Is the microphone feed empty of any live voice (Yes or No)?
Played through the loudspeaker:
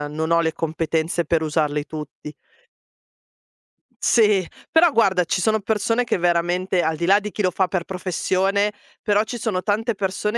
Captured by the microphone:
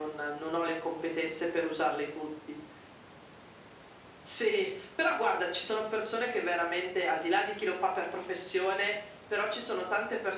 Yes